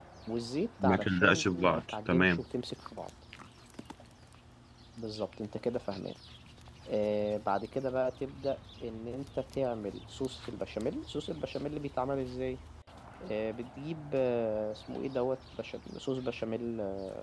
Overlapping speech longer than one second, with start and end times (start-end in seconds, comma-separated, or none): 0.8-2.4